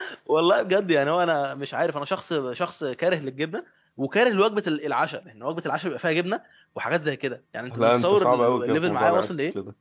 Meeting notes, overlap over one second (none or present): present